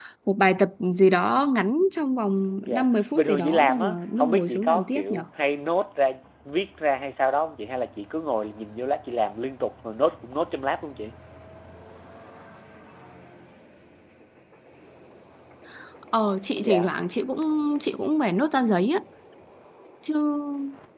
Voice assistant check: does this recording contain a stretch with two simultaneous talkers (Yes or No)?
Yes